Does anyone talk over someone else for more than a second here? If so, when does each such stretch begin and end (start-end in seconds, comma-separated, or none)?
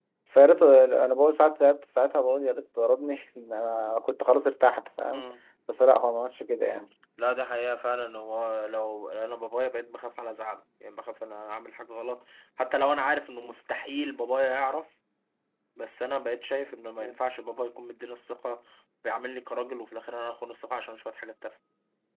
none